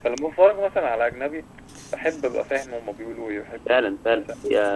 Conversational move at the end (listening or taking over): taking over